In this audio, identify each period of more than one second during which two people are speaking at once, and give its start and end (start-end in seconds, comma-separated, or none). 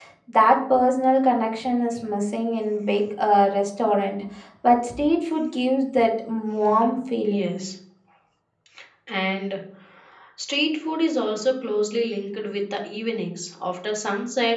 none